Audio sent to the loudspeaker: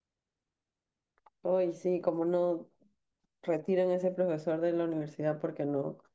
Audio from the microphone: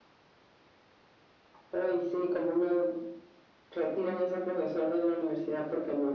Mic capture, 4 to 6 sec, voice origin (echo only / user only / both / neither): echo only